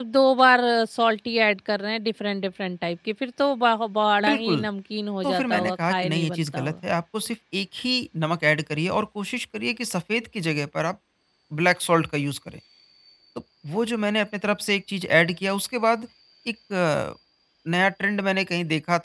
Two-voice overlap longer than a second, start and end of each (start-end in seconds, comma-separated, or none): 5.2-6.7